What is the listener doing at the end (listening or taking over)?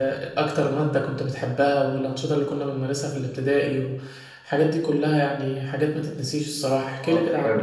taking over